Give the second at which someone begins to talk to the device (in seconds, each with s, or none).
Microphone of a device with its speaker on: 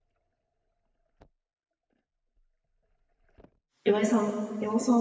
3.8 s